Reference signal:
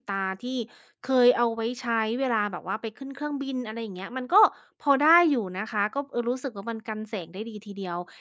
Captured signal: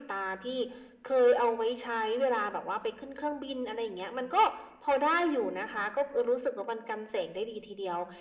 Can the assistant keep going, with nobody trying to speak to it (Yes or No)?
Yes